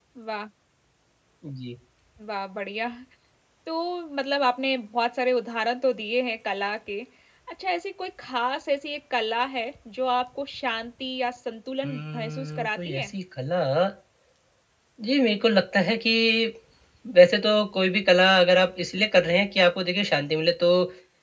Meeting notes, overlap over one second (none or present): present